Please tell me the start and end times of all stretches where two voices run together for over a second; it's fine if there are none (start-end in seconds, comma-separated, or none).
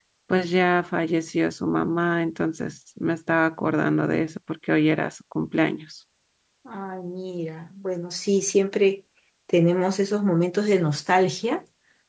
none